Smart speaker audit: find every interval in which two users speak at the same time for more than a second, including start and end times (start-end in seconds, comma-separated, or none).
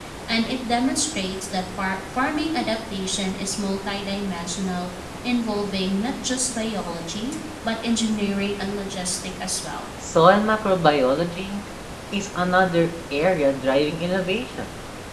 none